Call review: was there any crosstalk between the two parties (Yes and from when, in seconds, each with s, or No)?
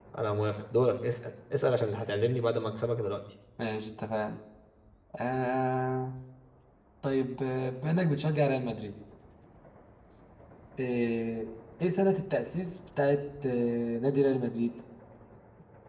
No